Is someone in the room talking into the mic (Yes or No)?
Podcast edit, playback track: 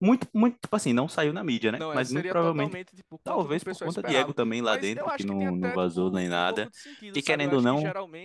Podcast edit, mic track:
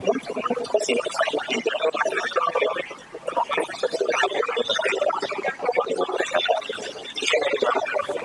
No